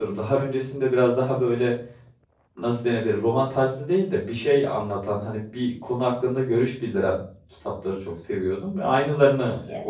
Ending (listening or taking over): listening